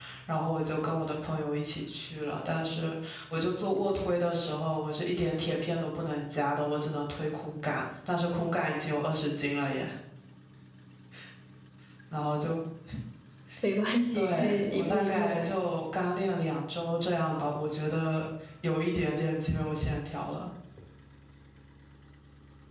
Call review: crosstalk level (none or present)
present